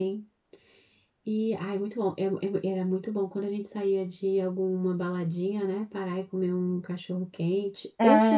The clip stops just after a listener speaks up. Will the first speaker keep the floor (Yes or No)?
No